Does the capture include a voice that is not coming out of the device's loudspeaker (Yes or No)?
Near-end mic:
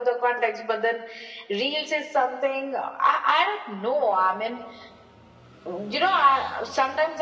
No